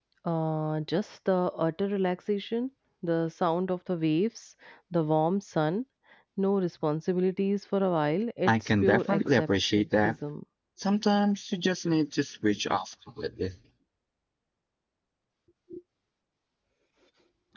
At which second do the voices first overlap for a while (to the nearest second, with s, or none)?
8 s